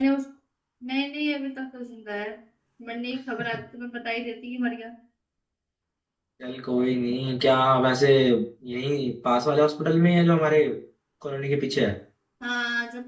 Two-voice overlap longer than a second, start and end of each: none

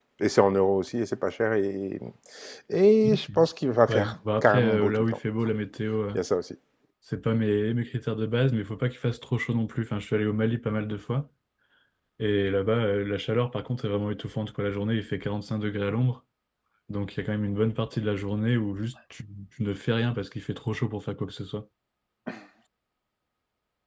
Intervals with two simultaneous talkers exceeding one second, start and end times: 3.9-5.2

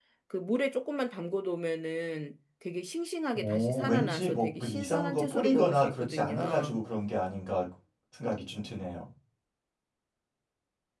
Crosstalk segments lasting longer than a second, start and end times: 3.3-6.8

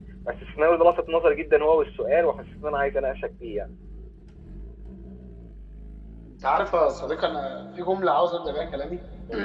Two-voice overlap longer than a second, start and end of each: none

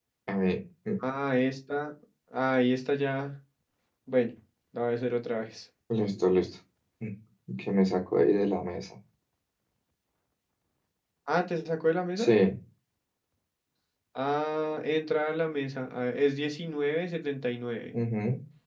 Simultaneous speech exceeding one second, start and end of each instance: none

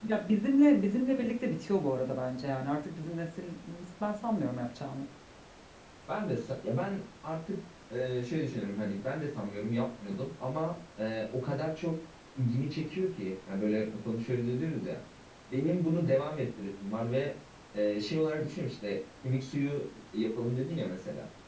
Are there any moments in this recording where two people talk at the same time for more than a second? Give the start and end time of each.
none

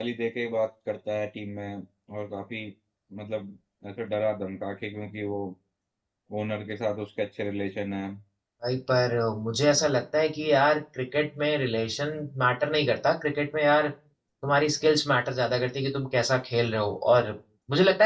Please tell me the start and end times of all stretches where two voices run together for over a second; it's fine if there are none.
none

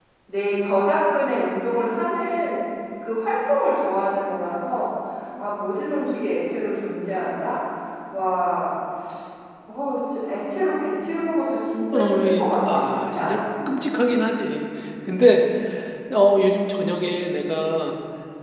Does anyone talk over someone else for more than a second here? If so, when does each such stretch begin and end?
11.9-13.4

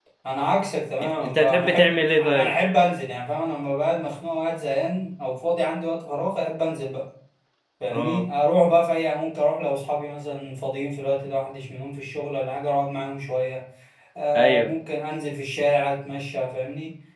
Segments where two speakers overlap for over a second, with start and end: 1.0-2.5

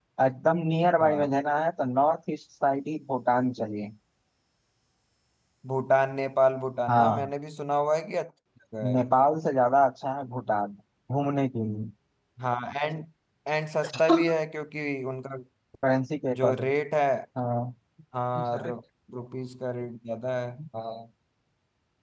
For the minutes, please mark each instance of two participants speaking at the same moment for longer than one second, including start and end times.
none

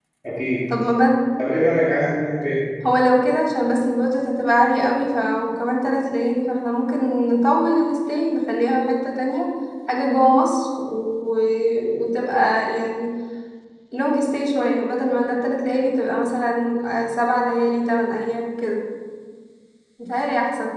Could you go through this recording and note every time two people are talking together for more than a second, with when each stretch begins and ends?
none

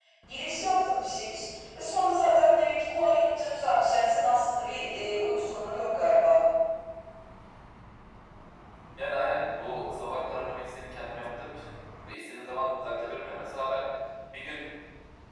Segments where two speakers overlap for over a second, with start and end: none

